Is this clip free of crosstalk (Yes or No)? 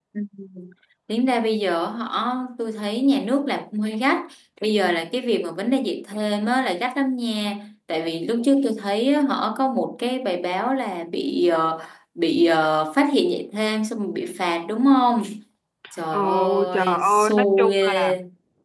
No